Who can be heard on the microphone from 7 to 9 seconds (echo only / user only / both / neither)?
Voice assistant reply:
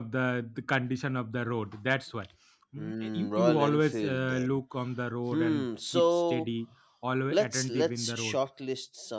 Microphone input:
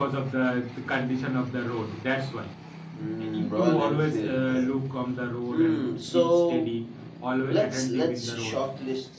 echo only